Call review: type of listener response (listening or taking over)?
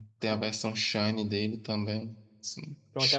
taking over